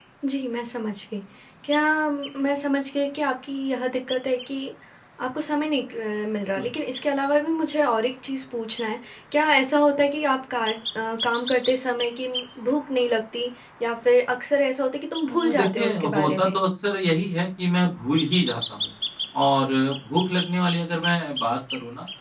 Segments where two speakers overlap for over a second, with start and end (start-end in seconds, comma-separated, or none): 15.2-16.6